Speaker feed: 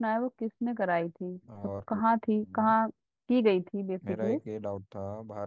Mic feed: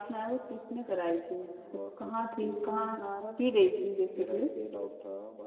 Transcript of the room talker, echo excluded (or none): हम्म, भारत